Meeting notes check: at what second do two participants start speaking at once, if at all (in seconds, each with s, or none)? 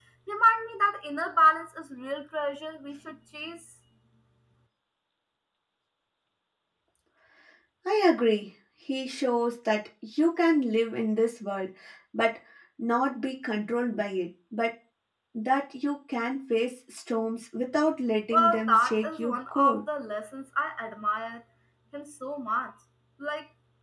18.3 s